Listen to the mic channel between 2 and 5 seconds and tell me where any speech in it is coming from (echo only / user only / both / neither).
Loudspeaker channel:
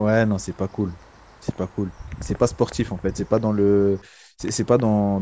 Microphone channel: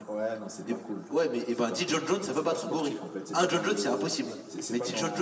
both